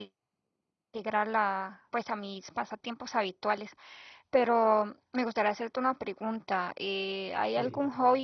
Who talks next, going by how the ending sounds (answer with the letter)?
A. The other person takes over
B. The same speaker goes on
B